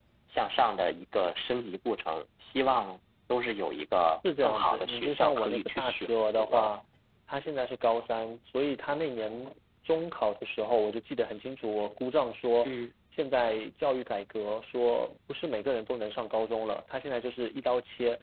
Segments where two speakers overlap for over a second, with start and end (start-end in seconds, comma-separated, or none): 4.4-6.7